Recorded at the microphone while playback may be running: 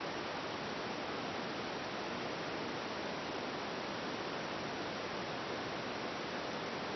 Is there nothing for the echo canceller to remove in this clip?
Yes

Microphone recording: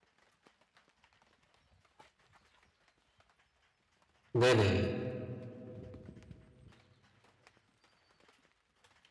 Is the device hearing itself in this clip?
No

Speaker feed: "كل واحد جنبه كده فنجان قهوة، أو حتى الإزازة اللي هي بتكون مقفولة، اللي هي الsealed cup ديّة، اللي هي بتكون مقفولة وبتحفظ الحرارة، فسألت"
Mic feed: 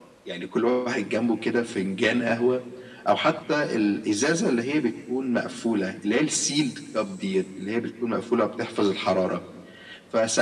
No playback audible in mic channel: No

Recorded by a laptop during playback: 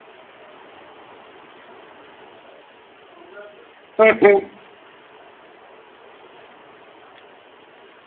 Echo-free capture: Yes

